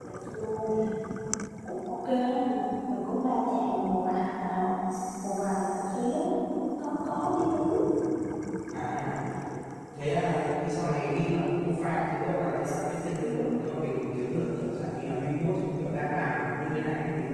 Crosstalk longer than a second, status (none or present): none